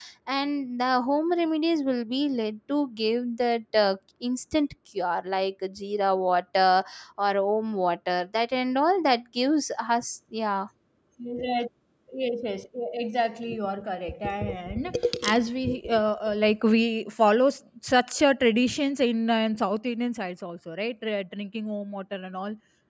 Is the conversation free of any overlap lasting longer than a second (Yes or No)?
Yes